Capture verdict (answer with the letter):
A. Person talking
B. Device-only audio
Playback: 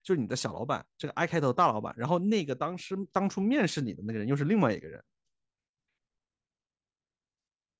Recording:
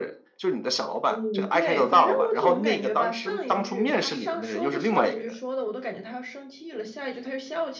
A